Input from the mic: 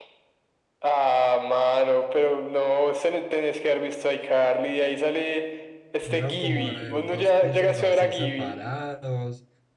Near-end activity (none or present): present